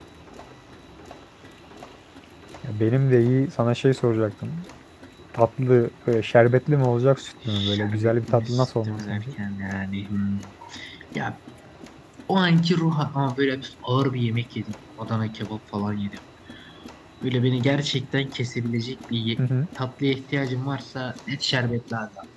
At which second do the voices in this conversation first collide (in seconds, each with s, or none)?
7.5 s